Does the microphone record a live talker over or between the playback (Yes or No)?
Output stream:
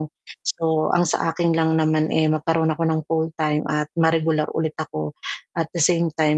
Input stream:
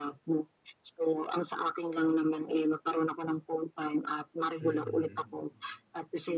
Yes